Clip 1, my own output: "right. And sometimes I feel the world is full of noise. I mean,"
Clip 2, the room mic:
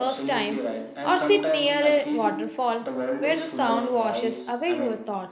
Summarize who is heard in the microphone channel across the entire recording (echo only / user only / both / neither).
both